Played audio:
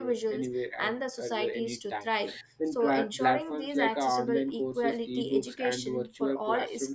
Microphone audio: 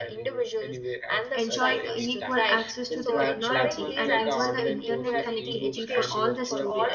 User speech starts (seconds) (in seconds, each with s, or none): 1.4 s